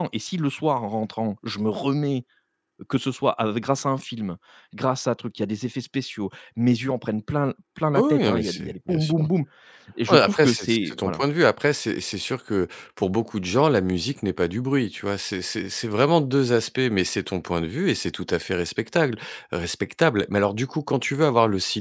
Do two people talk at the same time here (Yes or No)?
Yes